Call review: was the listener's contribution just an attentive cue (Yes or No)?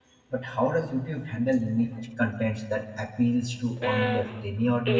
No